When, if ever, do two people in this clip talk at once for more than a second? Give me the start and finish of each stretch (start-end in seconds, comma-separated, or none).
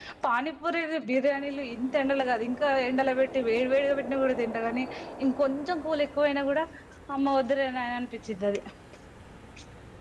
none